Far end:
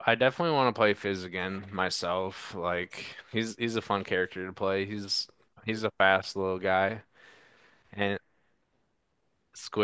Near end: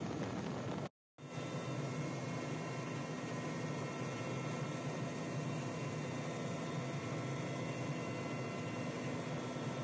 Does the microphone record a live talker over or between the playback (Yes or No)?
No